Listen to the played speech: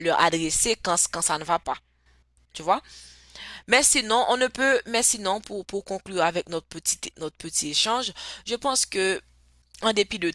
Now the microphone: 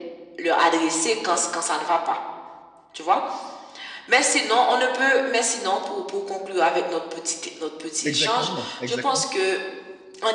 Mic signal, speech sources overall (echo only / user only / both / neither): both